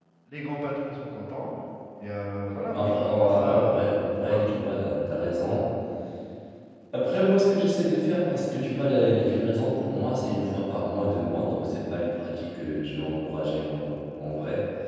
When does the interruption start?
2.7 s

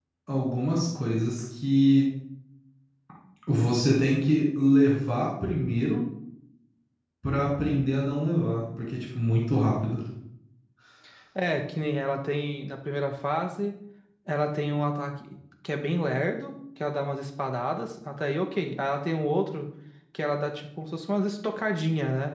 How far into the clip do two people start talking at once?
none

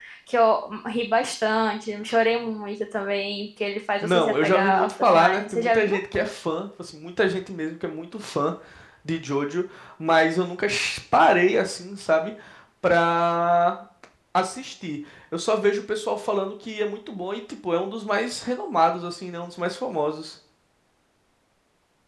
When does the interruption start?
4.0 s

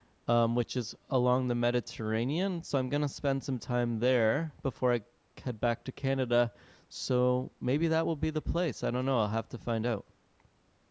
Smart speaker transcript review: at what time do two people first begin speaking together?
none

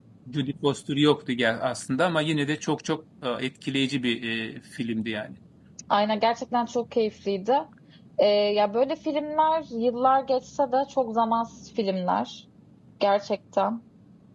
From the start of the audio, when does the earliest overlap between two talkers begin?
none

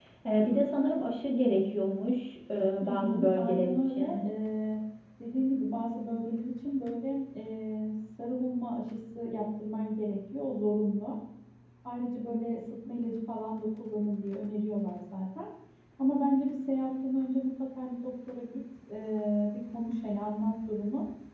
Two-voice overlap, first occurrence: 2.8 s

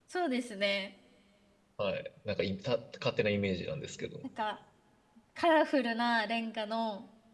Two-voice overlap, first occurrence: none

